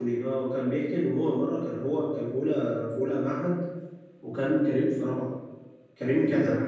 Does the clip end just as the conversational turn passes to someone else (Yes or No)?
No